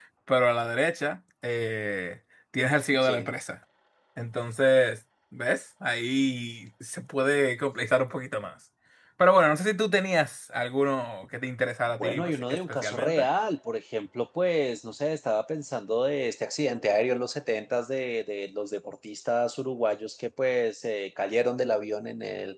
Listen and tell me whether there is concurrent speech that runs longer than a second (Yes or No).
Yes